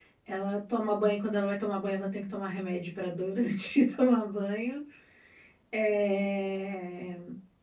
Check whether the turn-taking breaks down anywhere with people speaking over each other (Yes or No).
No